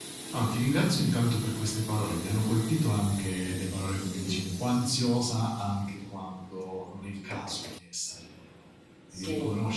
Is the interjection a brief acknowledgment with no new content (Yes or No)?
Yes